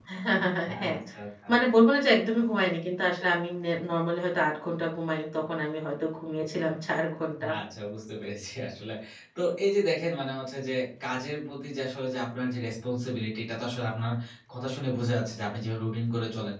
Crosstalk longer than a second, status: none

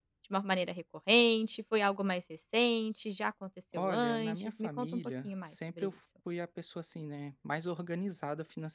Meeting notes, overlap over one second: present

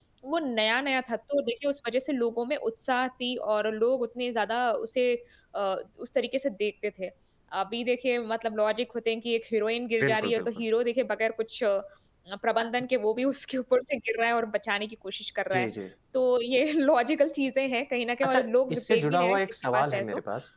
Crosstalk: present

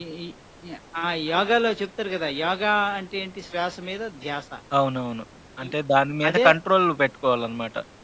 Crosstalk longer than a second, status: none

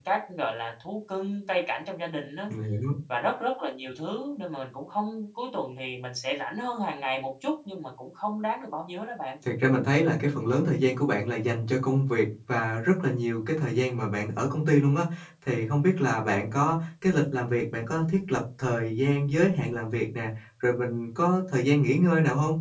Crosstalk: none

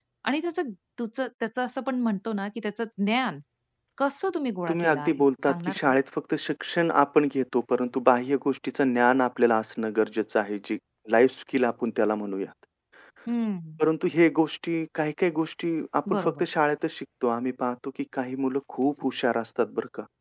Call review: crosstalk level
present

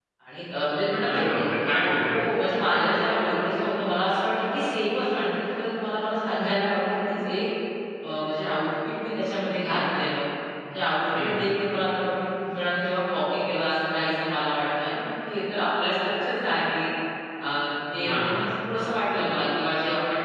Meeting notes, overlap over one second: none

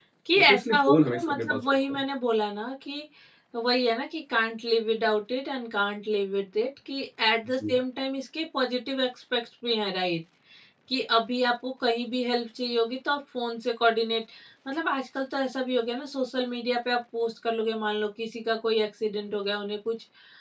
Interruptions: present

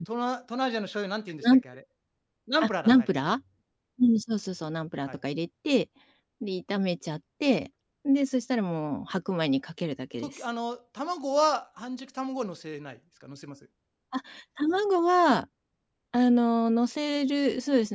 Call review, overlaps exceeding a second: none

